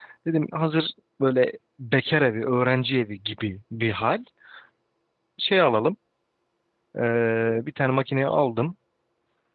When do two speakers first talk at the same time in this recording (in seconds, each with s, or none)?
none